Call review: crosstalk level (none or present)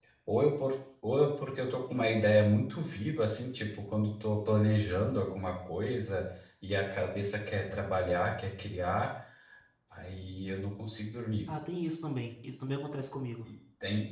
none